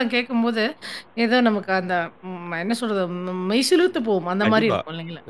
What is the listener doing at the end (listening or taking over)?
taking over